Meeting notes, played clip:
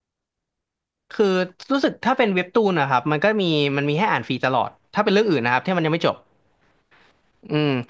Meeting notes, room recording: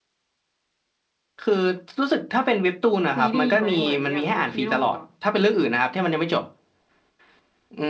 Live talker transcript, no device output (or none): ซีรีส์ไหมเหมือนอย่างวิคิโร่อะ